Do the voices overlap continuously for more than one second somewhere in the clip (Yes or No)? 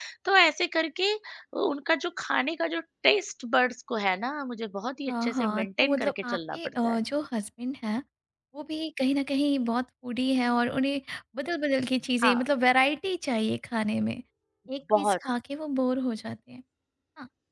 Yes